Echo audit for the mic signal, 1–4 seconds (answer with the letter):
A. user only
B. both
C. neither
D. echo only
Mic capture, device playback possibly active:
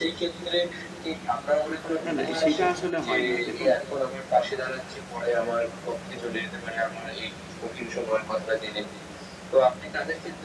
B